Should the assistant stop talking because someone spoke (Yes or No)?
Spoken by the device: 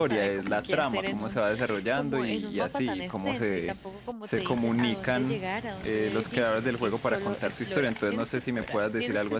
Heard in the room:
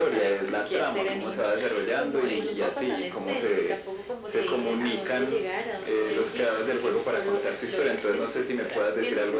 Yes